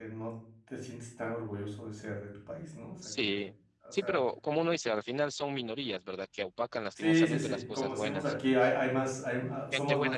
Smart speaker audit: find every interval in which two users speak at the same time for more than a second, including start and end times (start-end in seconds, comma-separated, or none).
7.0-8.3